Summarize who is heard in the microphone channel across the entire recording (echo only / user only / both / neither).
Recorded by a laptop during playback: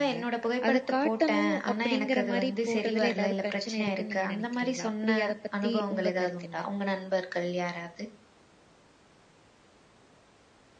both